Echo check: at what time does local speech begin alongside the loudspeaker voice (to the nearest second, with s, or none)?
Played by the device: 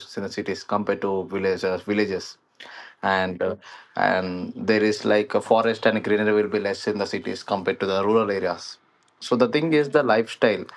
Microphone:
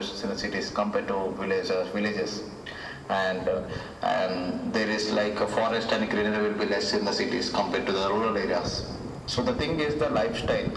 none